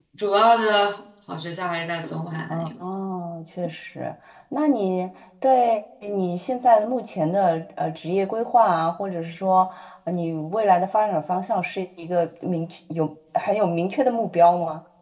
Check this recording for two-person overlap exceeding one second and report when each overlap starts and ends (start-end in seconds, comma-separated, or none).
none